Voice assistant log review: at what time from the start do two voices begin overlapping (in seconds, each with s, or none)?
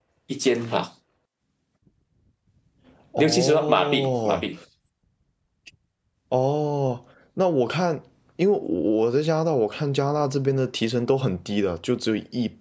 3.2 s